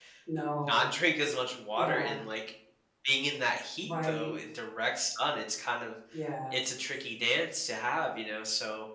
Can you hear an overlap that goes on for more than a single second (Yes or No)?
No